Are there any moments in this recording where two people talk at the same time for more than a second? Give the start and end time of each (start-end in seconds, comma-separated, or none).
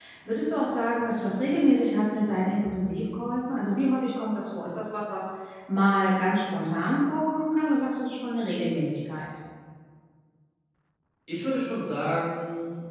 none